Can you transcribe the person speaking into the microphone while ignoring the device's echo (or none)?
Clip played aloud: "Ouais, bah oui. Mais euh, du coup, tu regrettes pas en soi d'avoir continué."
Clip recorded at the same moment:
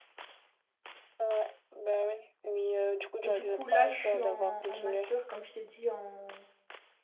et du coup là je suis en, en master, comme je t'ai dit, en,